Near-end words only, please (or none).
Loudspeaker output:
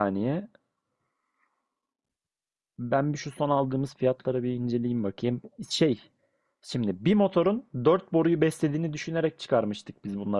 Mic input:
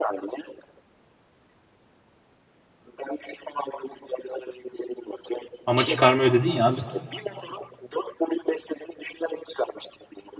Ama çıkarma ödedin ya abi.